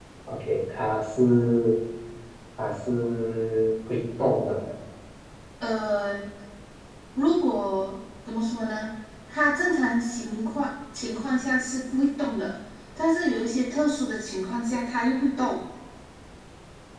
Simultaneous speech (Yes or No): No